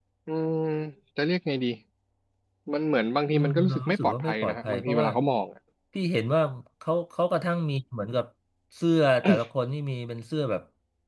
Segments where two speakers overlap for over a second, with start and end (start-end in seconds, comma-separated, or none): 3.3-5.1